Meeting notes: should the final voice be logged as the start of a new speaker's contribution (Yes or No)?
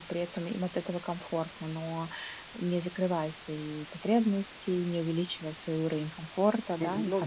Yes